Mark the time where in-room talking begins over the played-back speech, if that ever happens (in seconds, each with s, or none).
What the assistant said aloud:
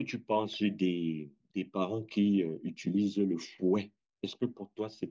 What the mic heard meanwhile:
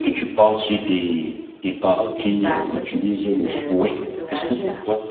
2.4 s